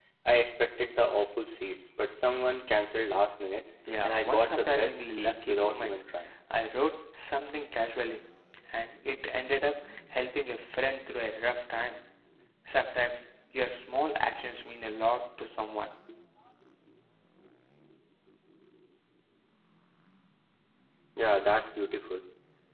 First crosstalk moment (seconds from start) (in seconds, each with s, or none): 3.9 s